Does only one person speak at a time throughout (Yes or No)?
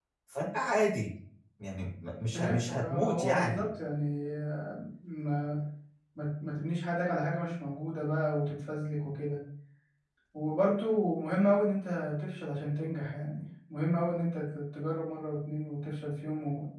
No